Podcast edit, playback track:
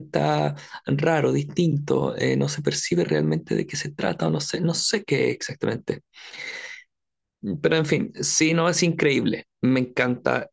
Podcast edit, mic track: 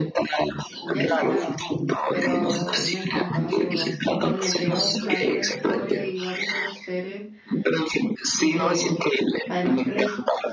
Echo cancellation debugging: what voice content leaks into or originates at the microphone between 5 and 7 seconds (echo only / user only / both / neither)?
both